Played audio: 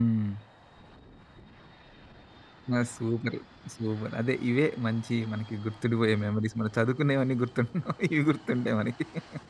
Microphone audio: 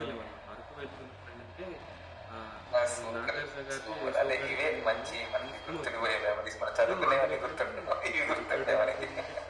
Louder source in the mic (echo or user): echo